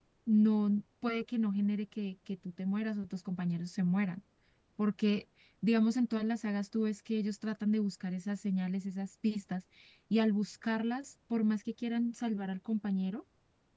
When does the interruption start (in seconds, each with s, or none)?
none